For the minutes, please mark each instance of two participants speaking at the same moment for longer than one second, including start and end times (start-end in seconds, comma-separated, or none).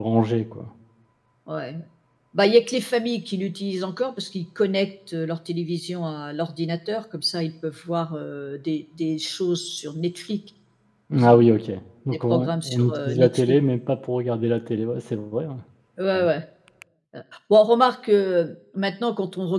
12.3-13.6